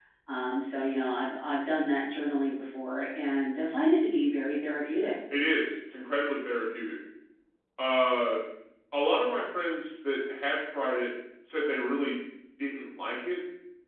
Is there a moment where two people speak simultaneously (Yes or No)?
No